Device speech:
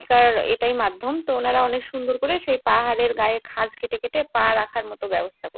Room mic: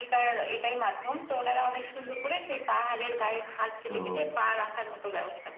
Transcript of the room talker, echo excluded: তো

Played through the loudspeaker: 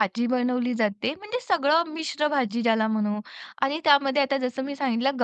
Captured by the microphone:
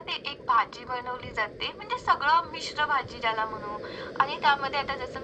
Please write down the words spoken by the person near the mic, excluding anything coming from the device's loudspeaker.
none

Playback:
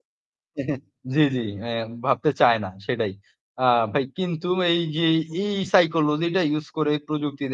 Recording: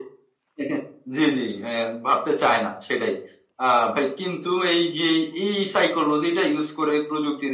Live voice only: none

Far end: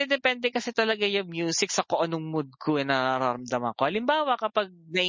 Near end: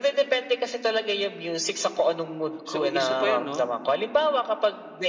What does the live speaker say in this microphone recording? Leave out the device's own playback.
So, isa pa yun, no?

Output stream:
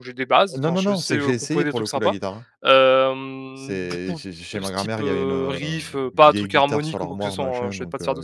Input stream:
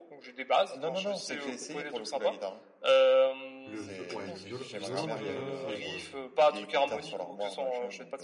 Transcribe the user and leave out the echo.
Le vio ouais, le violo violon, moi, j'ai jamais essayé pour le coup. Heu,

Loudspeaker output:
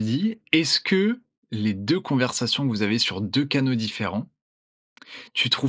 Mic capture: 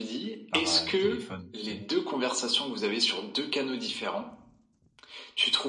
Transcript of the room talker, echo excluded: par, heu, téléphone tu sais?

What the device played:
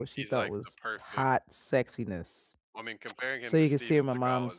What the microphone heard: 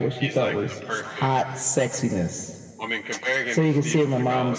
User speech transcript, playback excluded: none

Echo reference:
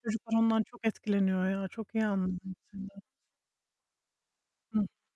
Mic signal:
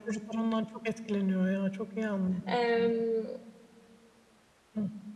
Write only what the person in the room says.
Emm

